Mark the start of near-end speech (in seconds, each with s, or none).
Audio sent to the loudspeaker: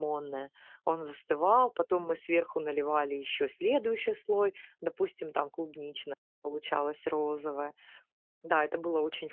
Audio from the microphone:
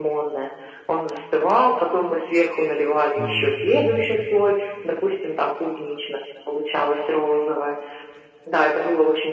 3.1 s